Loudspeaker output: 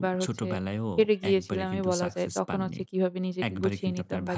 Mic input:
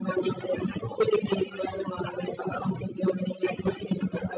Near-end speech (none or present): none